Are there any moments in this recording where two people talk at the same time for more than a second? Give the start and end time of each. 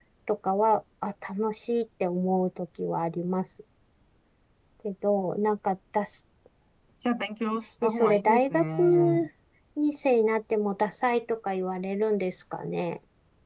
7.8-9.3

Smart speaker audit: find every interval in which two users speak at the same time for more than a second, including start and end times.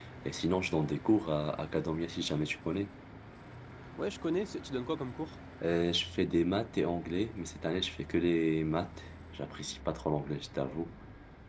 none

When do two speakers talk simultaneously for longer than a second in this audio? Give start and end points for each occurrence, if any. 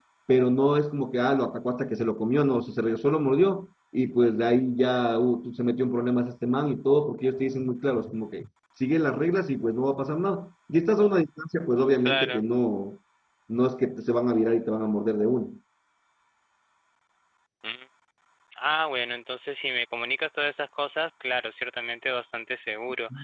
none

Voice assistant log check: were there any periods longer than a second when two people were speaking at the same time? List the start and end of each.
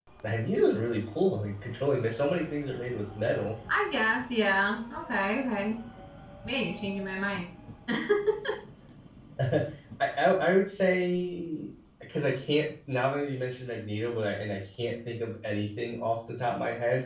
none

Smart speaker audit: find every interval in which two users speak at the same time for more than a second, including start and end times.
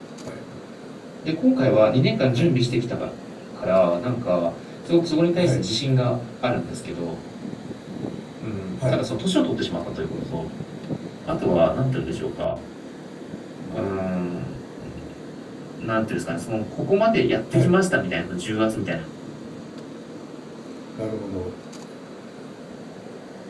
none

